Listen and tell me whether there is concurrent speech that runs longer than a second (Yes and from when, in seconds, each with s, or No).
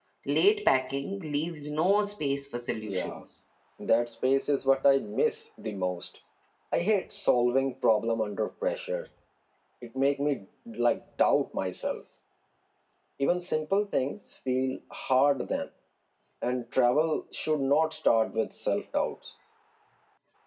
No